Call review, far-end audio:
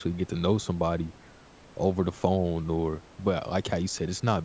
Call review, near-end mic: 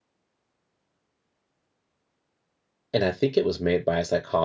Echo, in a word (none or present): none